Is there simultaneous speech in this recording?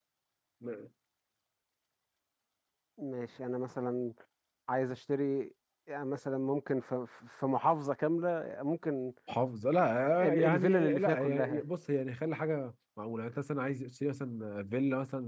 Yes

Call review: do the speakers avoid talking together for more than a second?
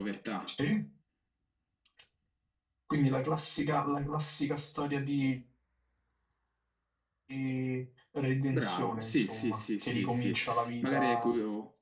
No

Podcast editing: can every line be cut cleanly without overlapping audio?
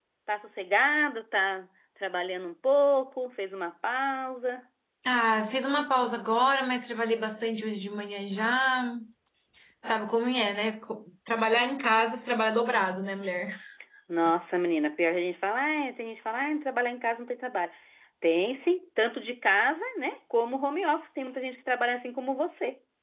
Yes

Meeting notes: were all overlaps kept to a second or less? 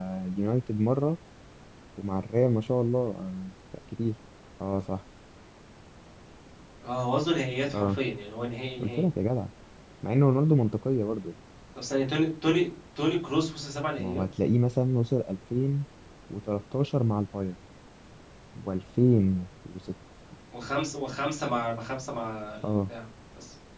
Yes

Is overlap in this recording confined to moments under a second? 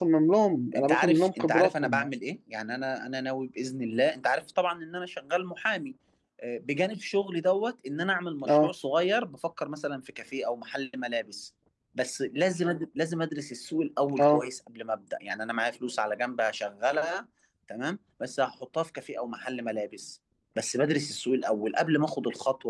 No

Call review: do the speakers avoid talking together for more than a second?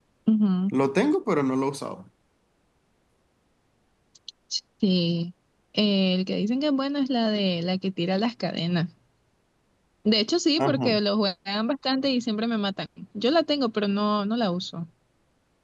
Yes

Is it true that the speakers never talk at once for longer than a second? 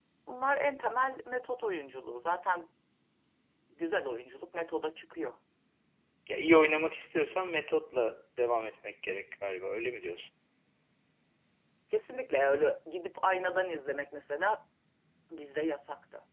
Yes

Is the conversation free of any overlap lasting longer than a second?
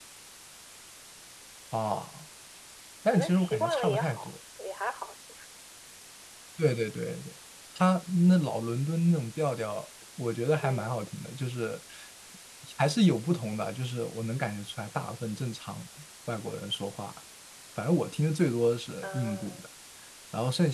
No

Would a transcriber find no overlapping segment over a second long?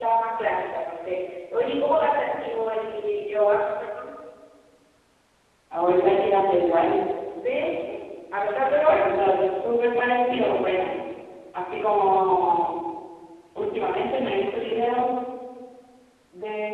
Yes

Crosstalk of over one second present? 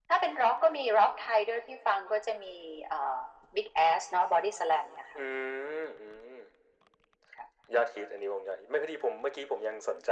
No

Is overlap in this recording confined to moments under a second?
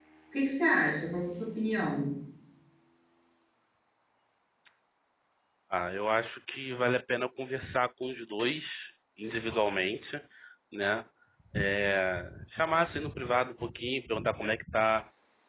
Yes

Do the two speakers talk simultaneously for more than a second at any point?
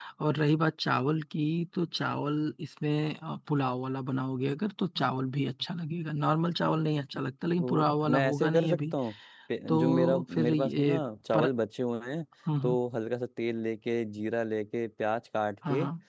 Yes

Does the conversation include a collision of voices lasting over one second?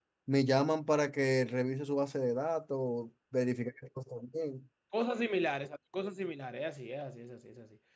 No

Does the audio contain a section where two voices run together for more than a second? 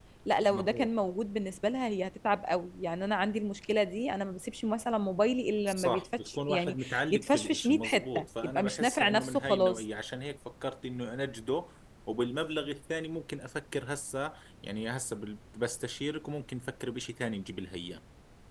Yes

